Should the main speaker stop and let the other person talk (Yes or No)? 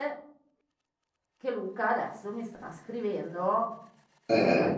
No